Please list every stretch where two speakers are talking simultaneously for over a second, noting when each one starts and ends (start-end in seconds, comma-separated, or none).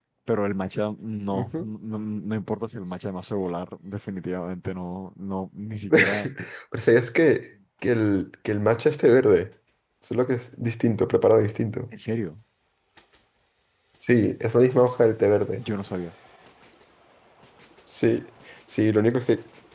none